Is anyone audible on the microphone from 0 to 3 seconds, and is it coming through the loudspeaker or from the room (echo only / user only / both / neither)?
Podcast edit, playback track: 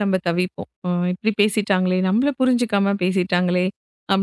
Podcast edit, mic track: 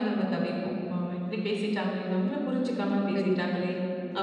echo only